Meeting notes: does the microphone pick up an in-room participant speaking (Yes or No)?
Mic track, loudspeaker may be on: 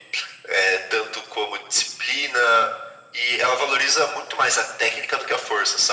No